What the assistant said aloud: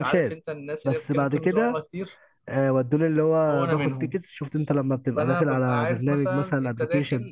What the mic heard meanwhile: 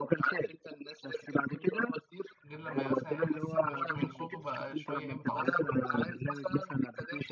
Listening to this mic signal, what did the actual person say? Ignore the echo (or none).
غير لما مثلا احس ان تون صوته بقى شويه ايه متعصب